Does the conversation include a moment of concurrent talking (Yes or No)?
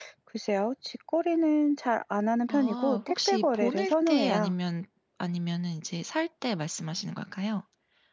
Yes